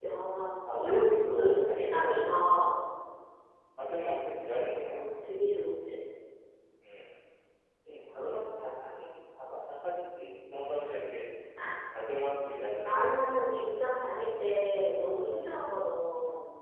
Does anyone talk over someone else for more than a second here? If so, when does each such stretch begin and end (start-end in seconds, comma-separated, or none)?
0.7-2.3